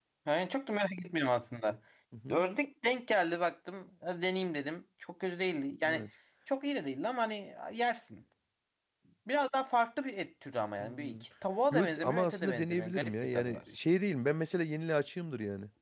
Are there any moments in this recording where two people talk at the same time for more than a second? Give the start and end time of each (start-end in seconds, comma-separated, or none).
11.7-13.6